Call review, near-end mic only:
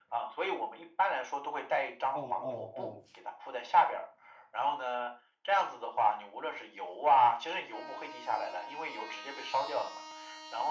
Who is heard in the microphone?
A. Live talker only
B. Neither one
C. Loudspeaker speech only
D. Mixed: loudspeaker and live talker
D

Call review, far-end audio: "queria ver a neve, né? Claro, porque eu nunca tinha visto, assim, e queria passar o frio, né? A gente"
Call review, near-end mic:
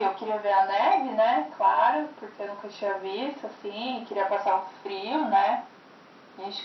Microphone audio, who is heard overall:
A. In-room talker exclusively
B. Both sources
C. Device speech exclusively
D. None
C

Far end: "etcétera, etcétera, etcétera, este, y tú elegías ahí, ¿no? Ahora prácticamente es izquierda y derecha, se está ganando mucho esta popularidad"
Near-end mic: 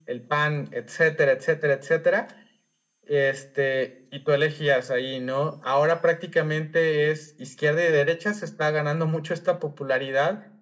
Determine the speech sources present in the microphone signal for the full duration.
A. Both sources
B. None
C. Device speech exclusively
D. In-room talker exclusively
C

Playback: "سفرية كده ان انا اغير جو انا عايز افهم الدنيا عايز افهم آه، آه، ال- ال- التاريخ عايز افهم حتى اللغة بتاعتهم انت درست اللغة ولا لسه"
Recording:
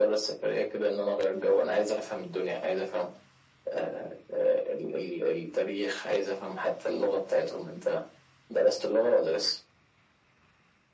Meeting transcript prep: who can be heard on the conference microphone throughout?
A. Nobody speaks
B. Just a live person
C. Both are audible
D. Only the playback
D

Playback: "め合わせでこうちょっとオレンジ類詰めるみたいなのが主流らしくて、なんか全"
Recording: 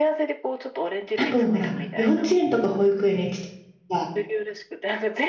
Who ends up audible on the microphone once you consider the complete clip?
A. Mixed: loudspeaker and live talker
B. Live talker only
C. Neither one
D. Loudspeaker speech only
A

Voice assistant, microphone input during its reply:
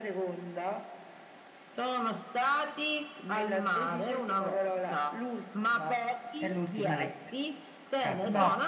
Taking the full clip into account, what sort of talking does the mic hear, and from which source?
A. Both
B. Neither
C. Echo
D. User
A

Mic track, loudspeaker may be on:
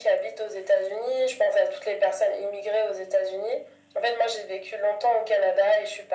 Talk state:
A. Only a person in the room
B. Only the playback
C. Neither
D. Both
B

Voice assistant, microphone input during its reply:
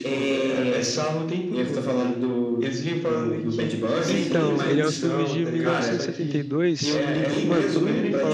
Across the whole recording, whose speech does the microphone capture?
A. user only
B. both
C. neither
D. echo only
B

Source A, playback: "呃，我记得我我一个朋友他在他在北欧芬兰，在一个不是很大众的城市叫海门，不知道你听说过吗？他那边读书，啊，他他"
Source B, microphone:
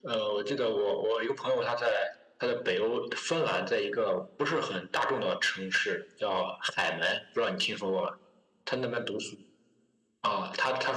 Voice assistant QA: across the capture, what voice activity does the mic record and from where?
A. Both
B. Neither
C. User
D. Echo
D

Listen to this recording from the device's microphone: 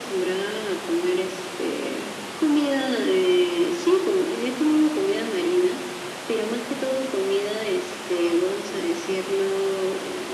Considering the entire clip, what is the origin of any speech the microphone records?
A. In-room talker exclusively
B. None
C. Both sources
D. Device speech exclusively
D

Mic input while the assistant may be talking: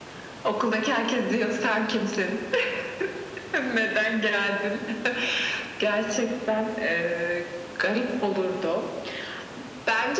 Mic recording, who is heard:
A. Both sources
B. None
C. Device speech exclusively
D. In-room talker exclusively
C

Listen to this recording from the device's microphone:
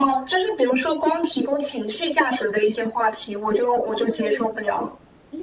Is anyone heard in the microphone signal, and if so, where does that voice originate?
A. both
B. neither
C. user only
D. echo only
A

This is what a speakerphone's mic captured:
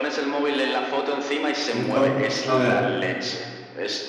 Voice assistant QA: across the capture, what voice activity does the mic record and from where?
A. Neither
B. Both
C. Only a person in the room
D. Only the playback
B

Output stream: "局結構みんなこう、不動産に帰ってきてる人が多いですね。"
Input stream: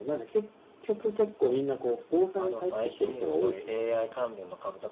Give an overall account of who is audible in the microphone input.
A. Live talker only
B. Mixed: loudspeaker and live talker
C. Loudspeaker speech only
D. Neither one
B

